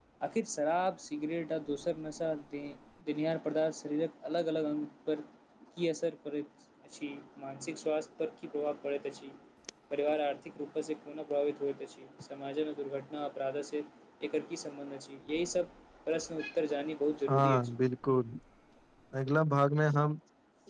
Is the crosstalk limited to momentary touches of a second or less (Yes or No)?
Yes